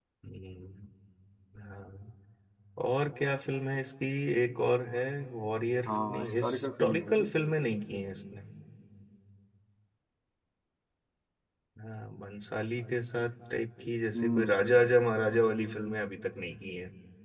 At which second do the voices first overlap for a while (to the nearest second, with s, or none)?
6 s